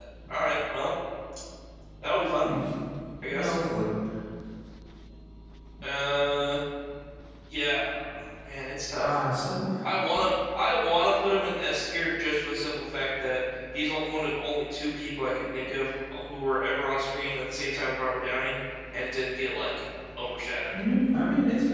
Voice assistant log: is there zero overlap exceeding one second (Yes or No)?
Yes